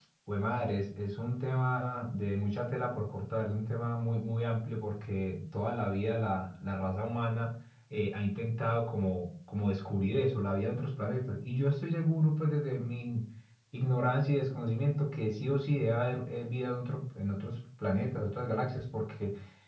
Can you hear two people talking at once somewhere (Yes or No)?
No